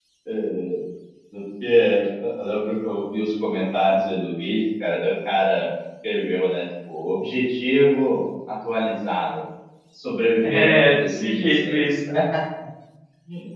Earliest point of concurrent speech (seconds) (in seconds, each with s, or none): 10.4 s